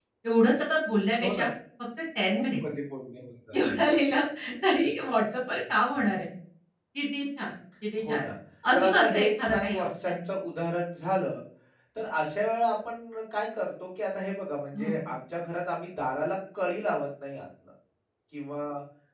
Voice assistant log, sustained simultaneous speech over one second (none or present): present